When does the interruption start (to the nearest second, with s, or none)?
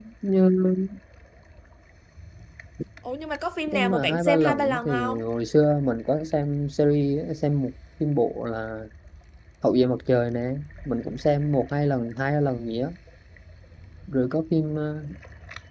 4 s